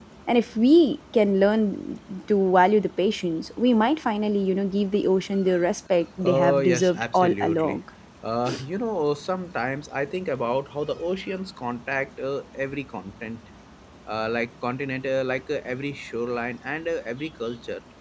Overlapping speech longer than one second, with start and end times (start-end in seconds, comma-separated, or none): 6.2-7.8